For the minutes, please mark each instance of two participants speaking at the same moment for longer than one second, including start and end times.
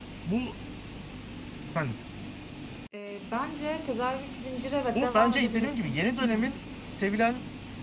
4.9-6.4

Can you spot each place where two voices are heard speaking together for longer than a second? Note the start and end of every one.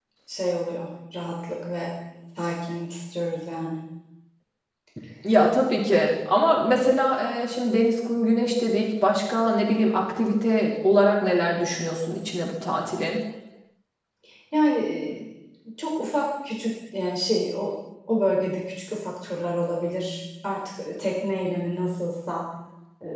none

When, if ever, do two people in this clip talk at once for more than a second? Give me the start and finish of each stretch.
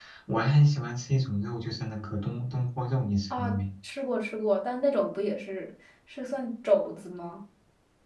none

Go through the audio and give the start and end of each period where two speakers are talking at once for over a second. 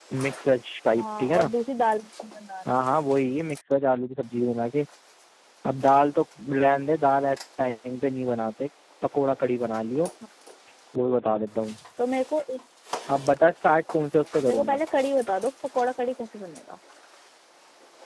none

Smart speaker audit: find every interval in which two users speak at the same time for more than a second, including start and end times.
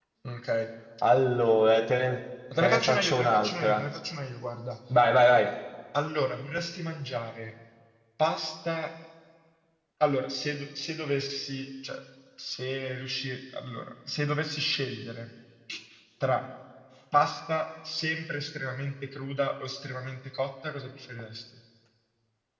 2.6-3.8

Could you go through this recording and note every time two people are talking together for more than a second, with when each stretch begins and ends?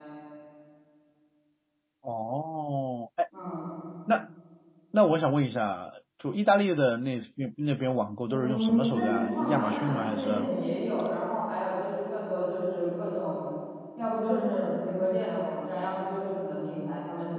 8.3-10.5

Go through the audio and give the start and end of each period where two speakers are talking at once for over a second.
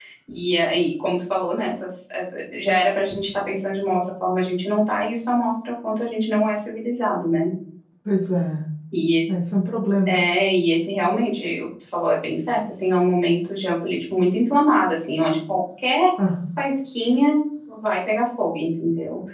none

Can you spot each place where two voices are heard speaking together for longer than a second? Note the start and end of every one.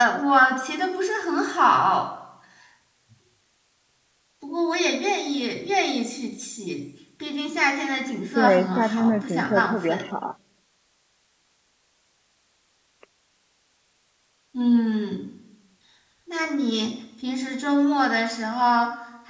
8.3-10.0

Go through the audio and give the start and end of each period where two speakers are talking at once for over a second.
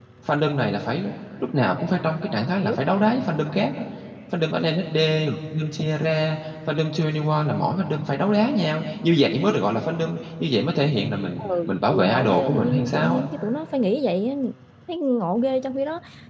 11.4-13.2

